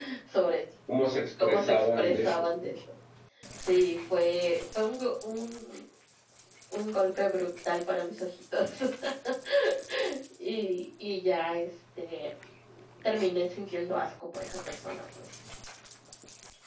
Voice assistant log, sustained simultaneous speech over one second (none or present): present